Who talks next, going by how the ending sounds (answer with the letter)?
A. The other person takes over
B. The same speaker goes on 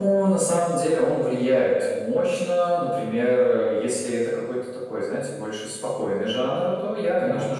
B